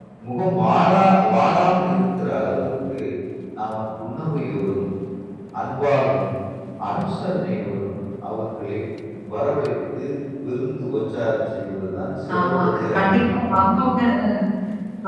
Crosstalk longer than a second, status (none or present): present